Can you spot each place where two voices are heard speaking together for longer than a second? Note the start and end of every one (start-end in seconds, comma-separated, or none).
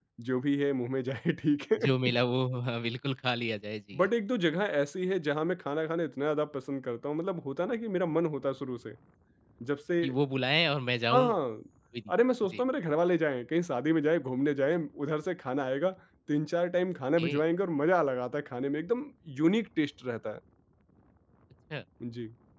none